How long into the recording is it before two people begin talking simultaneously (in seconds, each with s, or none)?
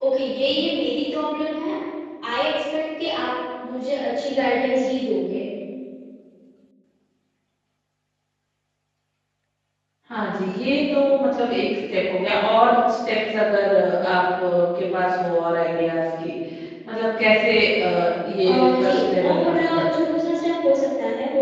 18.4 s